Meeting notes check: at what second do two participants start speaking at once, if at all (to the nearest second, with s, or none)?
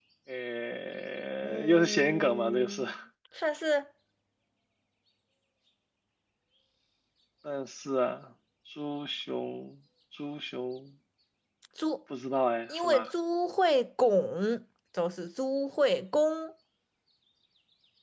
1 s